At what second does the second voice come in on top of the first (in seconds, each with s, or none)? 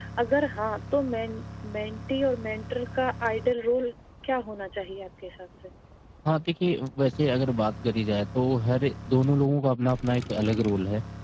none